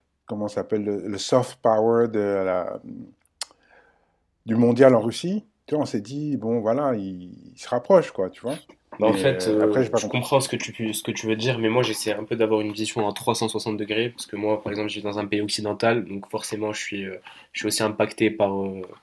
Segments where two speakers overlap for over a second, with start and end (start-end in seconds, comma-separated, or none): 9.0-10.2